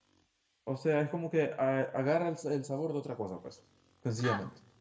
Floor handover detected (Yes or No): Yes